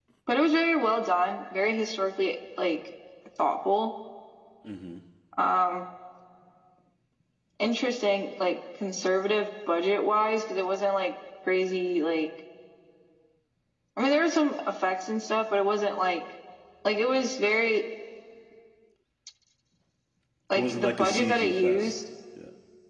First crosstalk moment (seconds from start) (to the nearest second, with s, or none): 21 s